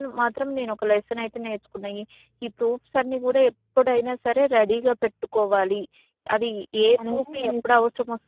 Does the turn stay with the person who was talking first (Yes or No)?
Yes